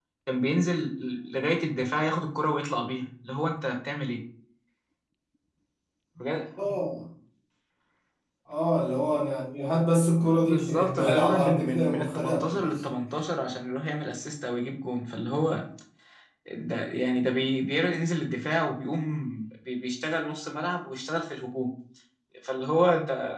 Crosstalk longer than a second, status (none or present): present